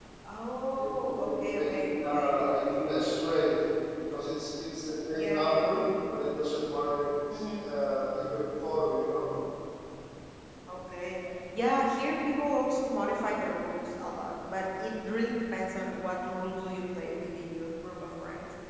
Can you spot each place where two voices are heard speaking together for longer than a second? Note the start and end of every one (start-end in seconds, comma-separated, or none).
0.8-2.5